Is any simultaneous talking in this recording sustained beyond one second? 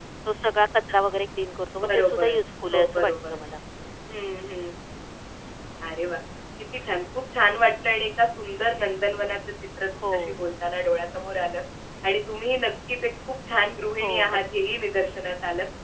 Yes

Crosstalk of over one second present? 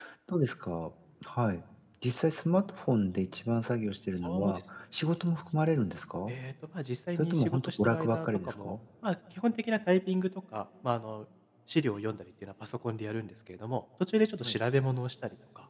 Yes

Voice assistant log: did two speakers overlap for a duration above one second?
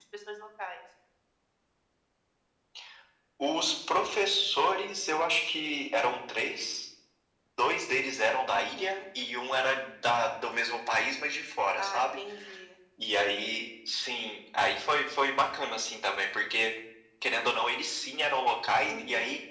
No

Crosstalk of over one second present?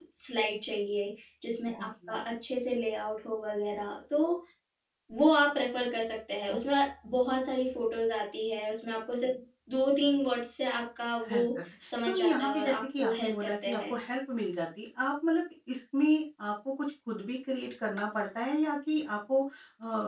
Yes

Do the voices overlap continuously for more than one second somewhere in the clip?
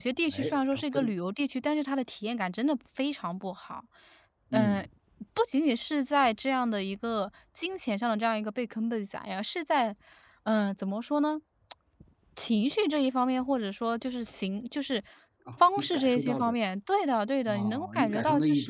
Yes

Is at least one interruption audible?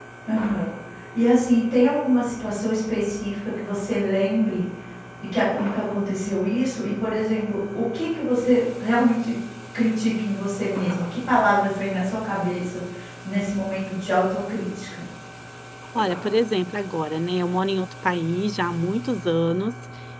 No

